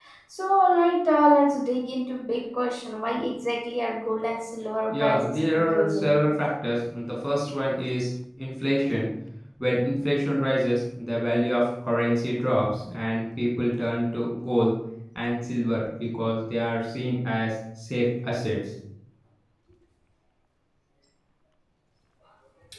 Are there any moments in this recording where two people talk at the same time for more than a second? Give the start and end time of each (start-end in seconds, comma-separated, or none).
4.9-6.1